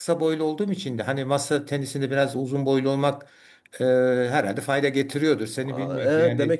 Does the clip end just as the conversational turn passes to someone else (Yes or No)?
Yes